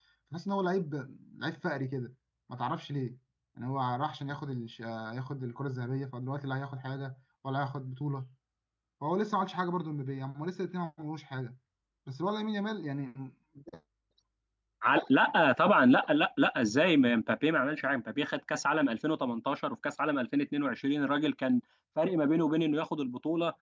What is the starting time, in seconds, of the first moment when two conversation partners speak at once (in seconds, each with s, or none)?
none